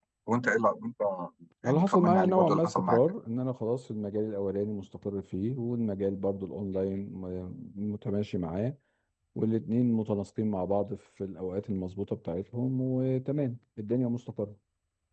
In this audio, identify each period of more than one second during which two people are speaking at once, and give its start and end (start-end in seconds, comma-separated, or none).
1.6-3.0